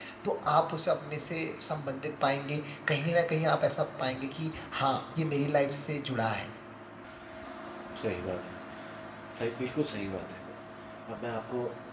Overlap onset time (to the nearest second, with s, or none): none